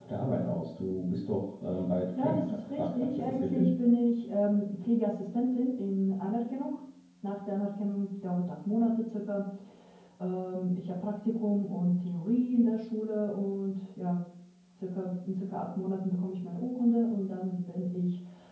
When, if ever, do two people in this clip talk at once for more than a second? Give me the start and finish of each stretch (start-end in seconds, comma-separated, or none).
2.1-3.7